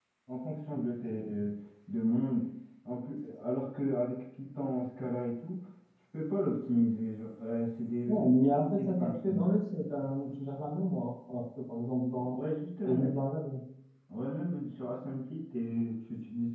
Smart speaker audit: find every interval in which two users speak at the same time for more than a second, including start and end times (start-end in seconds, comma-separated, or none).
8.1-9.5